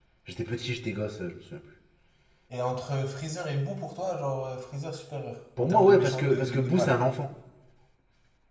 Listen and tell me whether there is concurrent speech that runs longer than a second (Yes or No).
Yes